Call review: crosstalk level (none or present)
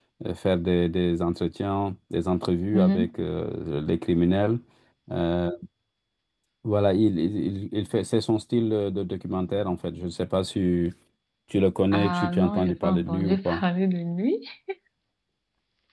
present